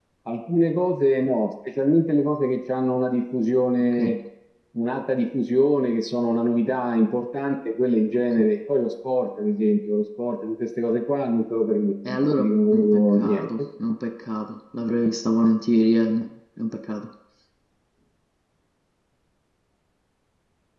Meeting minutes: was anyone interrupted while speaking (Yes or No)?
Yes